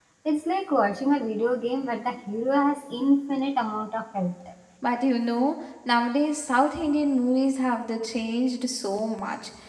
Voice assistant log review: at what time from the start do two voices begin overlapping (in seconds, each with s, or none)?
none